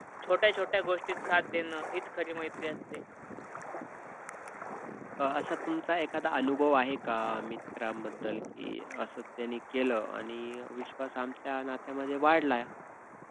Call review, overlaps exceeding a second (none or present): none